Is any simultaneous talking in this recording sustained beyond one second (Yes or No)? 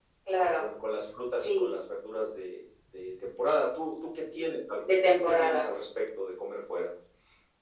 No